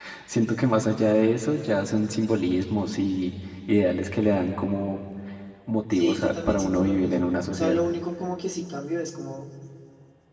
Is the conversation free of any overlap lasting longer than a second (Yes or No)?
No